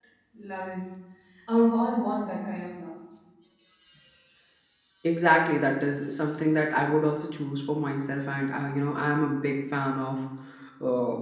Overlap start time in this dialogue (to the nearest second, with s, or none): none